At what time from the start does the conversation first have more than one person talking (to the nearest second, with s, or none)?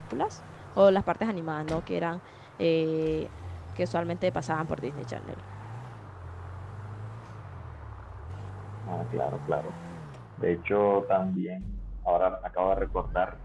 none